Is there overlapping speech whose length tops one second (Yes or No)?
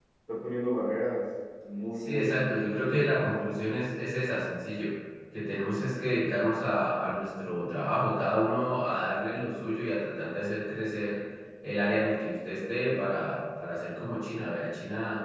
Yes